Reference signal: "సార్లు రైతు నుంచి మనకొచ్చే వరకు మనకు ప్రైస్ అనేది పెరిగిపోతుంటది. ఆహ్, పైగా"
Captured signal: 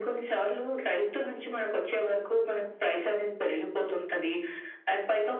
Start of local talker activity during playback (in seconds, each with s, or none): none